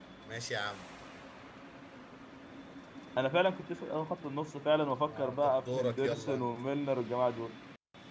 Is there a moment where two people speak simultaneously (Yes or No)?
Yes